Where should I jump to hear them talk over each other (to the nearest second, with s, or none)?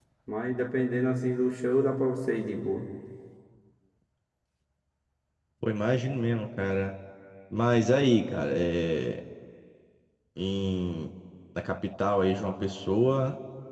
none